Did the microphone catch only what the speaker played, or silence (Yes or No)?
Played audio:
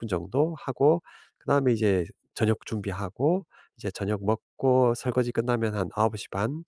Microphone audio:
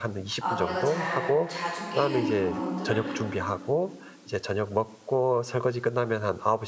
No